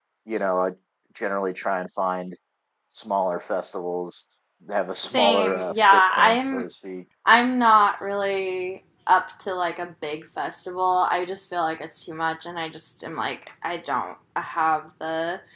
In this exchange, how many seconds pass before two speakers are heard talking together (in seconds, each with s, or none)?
5.0 s